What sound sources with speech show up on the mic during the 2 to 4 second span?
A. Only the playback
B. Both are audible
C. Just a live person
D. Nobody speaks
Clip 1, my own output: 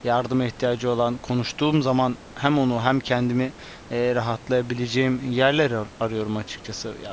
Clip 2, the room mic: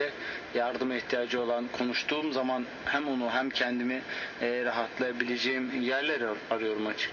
A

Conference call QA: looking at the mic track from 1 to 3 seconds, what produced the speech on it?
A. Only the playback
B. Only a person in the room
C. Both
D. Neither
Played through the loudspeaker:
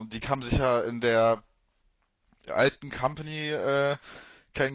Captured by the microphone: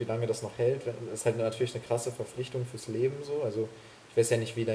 B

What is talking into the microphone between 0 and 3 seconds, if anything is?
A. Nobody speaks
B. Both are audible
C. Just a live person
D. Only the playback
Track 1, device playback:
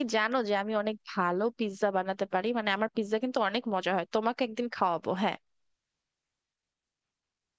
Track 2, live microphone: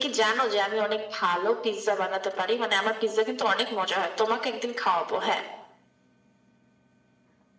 D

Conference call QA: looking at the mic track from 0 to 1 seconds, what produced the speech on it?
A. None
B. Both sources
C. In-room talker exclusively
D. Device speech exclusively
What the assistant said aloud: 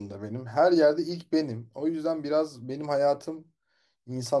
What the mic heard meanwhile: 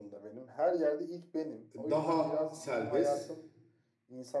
D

